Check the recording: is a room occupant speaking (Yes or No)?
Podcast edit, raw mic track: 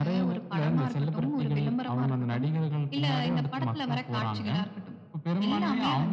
No